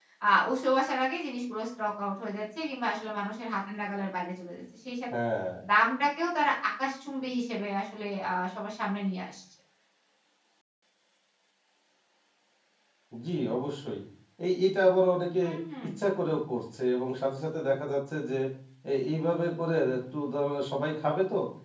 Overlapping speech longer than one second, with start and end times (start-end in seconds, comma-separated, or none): none